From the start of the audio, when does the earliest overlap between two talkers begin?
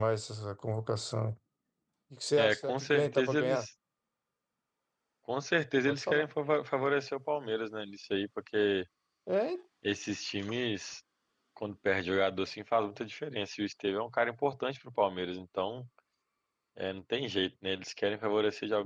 2 s

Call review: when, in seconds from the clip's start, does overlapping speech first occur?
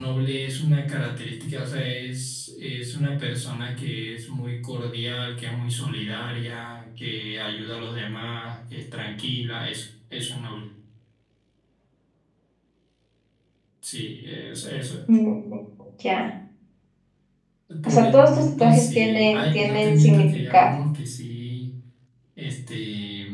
18 s

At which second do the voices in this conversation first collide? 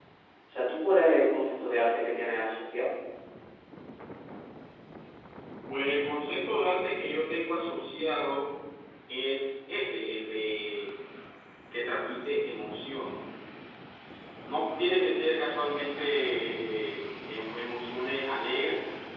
none

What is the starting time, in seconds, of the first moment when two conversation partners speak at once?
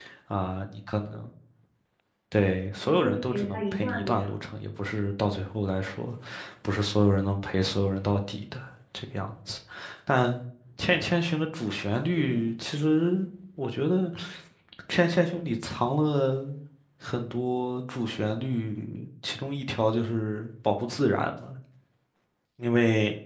3 s

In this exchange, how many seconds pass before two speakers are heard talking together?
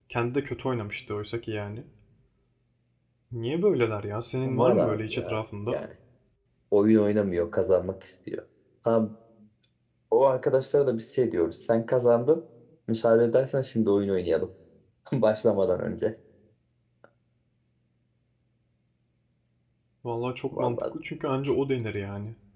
4 s

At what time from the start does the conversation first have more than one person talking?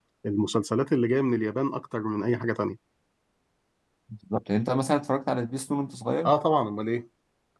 none

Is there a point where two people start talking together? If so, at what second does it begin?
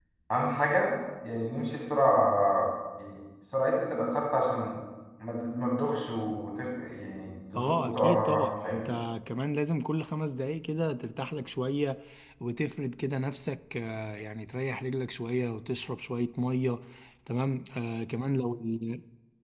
8 s

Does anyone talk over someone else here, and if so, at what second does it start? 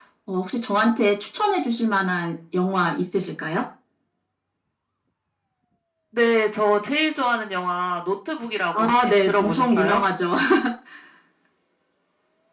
9 s

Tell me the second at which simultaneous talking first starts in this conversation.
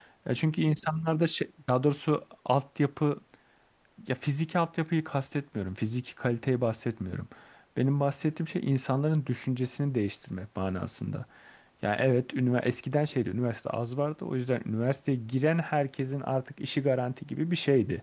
none

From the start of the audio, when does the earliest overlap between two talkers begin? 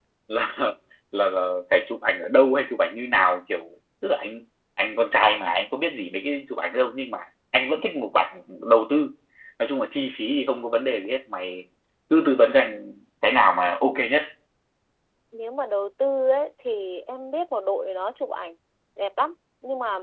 none

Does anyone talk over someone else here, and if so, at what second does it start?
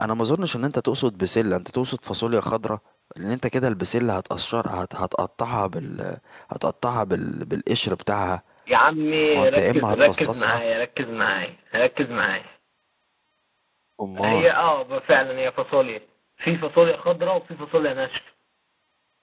9 s

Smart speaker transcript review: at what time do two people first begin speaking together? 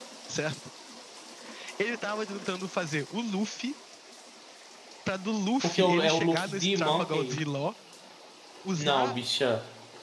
6 s

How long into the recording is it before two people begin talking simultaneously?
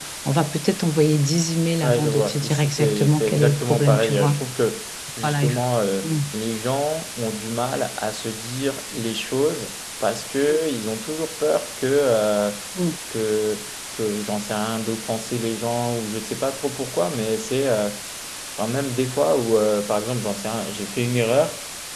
2 s

